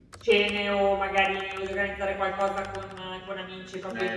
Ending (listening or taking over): taking over